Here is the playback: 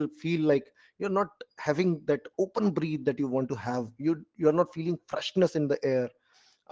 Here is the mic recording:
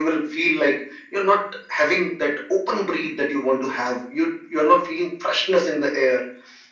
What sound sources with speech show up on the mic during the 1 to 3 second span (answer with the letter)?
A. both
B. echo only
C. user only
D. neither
B